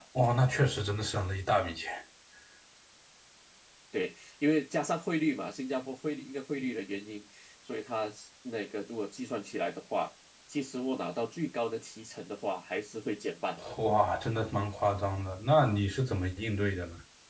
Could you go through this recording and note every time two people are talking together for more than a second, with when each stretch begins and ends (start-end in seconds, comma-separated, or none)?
none